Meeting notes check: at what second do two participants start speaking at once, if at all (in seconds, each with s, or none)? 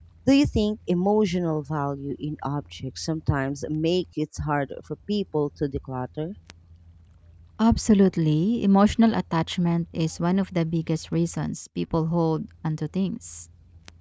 none